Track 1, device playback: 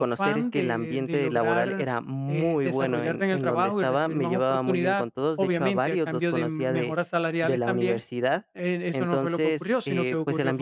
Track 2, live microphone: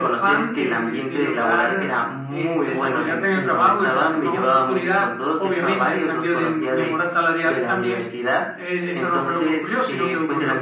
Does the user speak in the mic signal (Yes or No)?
No